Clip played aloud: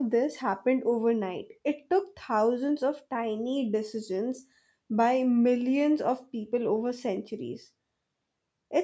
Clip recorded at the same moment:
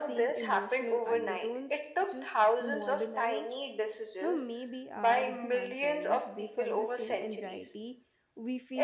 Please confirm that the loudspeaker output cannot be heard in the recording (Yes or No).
No